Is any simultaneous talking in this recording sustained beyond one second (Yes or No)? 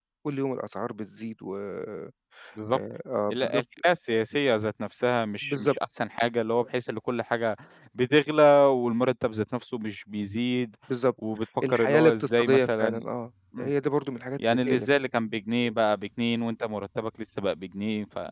Yes